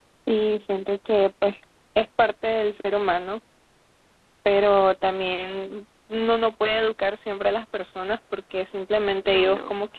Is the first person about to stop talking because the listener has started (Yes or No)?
No